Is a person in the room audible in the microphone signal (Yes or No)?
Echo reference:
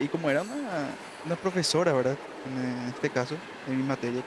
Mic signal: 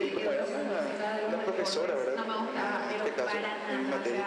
Yes